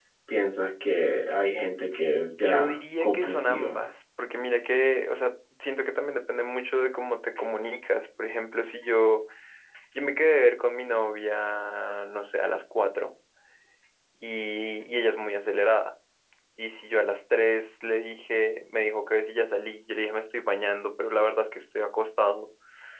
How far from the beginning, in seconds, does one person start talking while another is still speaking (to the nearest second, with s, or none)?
2 s